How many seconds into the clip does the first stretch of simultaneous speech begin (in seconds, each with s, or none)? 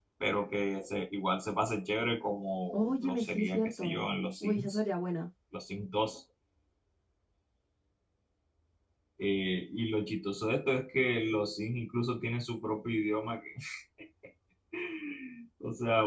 2.7 s